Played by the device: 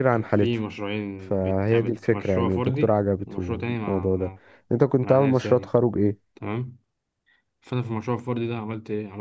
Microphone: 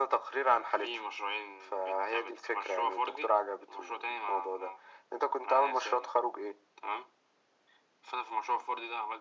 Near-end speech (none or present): none